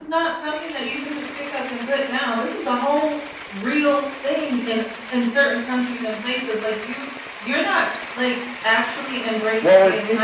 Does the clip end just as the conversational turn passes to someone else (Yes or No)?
Yes